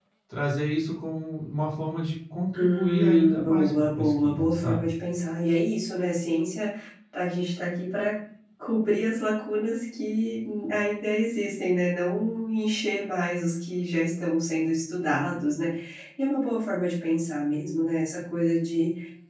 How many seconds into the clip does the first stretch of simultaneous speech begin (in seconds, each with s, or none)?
2.5 s